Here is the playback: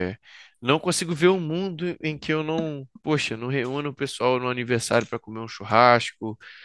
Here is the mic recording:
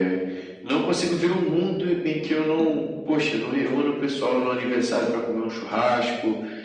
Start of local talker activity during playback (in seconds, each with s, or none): none